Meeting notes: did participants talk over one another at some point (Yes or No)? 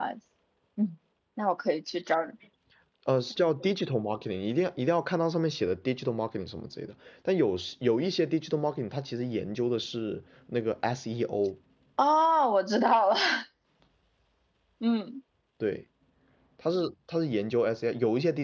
No